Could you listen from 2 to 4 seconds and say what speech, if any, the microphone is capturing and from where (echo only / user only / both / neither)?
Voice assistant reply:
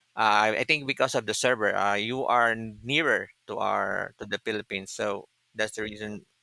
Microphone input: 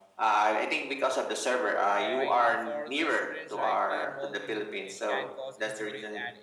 both